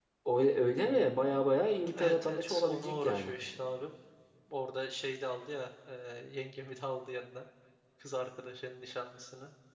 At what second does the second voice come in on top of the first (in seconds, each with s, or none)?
1.9 s